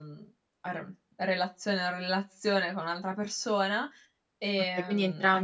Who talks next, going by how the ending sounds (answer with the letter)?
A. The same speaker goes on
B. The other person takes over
B